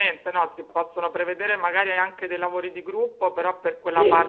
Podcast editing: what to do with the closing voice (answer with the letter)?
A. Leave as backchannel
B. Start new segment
A